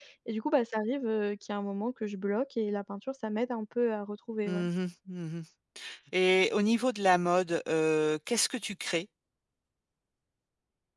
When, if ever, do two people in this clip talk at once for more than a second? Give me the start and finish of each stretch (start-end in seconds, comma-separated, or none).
none